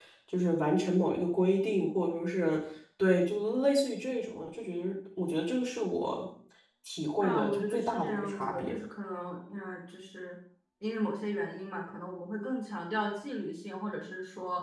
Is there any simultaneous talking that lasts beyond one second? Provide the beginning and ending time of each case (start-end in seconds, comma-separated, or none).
7.2-8.8